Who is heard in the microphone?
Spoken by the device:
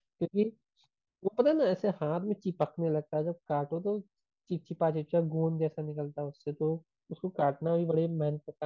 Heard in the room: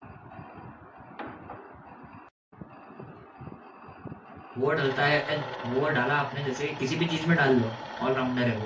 user only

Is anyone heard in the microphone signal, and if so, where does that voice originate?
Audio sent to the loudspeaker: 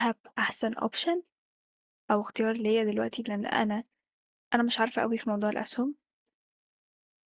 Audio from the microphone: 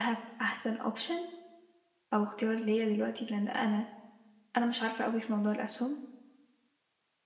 echo only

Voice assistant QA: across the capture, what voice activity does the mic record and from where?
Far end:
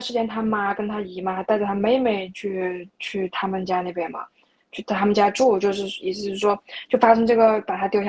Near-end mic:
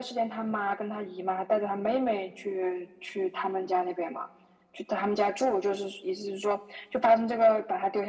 echo only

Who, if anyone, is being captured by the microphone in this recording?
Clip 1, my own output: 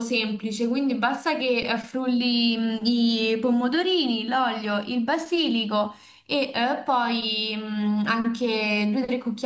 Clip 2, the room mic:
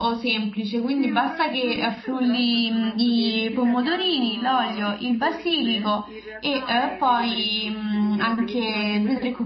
both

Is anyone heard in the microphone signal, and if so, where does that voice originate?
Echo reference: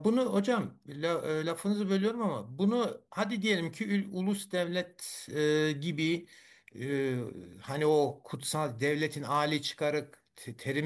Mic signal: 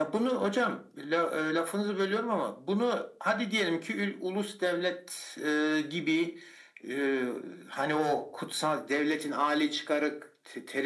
echo only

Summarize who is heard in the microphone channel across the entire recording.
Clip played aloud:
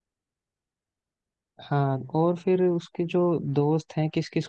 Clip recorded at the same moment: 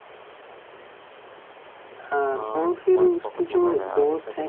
both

